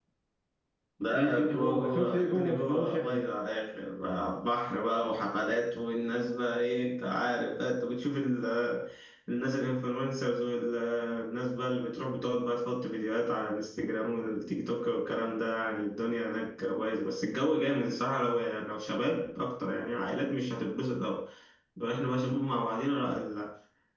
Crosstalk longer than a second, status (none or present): present